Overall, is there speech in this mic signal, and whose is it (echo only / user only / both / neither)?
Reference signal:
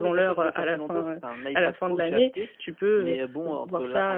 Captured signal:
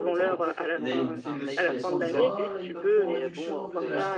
both